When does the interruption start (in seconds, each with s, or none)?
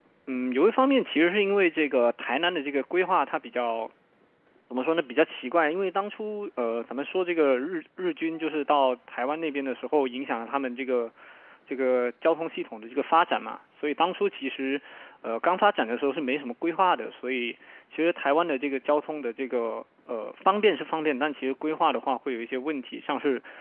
none